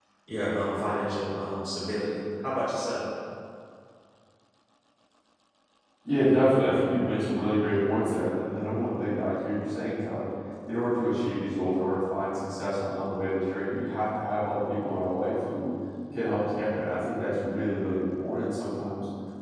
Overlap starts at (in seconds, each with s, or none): none